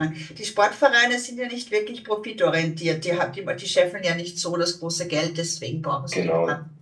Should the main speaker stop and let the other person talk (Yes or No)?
Yes